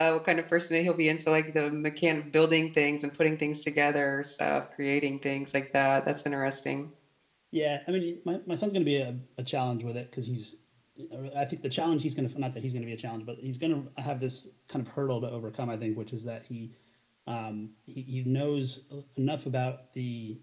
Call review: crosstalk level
none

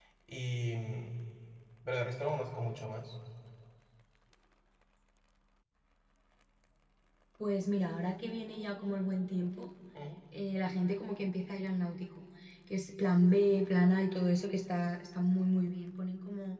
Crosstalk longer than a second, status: none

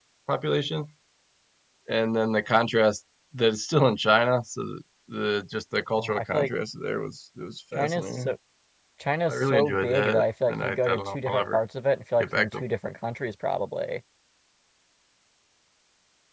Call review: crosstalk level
present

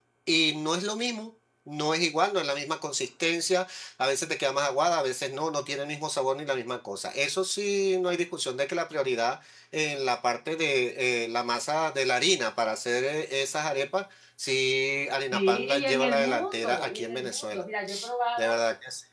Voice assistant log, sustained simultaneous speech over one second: present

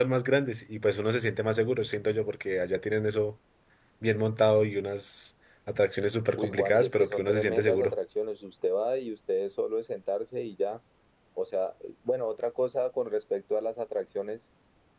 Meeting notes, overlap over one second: present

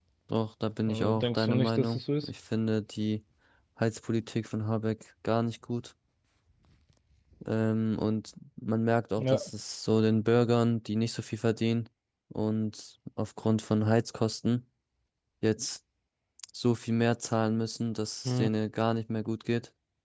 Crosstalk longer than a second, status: present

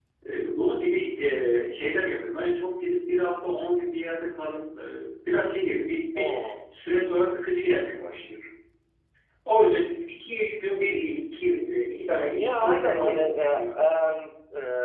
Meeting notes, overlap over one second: present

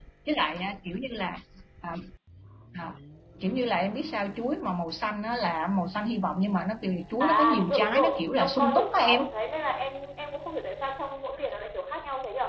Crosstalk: present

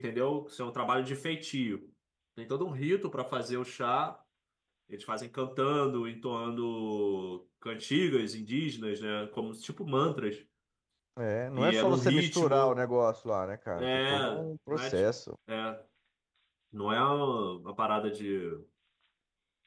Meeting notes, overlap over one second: present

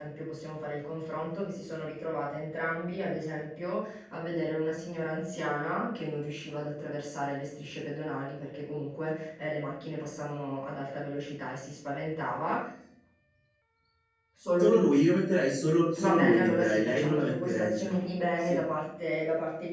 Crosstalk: present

